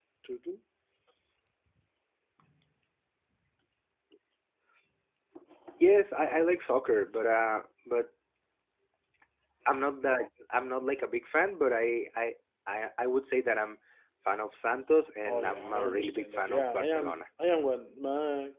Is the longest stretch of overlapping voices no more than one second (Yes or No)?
No